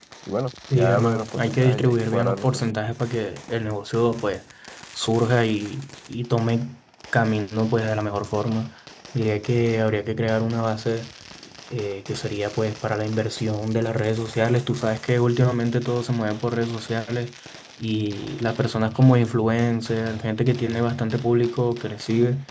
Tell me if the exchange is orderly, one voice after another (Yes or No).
No